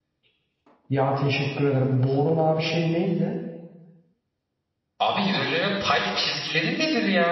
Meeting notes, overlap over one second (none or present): none